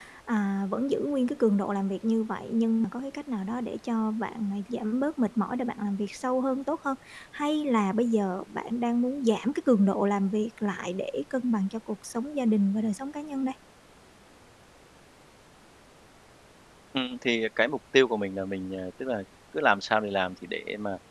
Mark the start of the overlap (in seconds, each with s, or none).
none